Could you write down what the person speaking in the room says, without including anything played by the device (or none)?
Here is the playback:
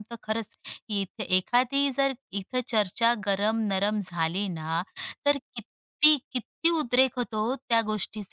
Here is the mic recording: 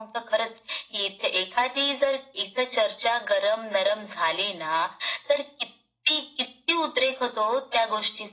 none